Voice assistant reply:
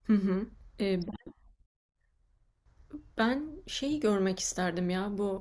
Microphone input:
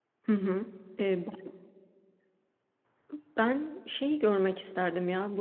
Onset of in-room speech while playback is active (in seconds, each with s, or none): none